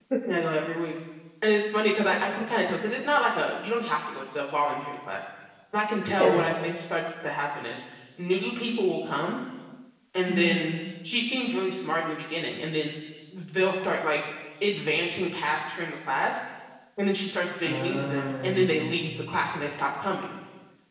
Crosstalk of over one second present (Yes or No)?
Yes